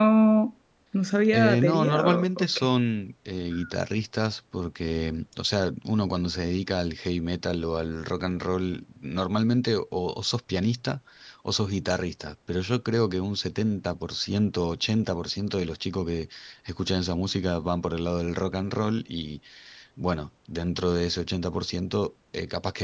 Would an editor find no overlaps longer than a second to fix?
No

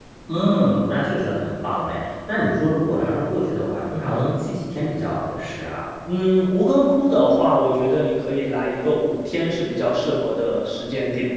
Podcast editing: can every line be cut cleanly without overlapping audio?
Yes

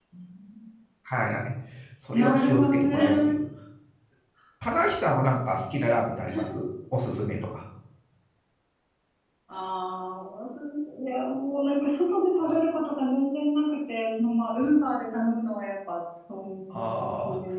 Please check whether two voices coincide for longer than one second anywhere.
Yes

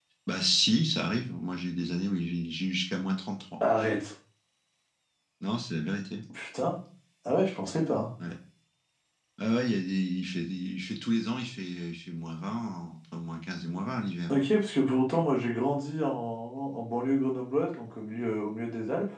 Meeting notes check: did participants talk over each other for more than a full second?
No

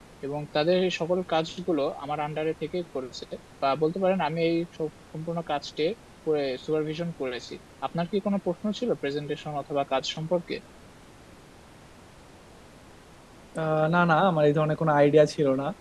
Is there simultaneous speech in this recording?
No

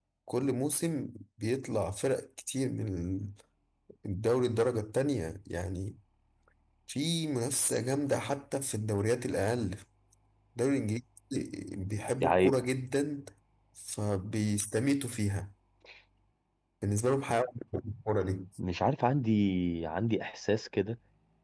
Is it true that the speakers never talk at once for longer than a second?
Yes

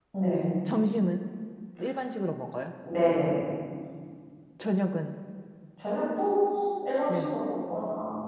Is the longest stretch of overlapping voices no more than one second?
Yes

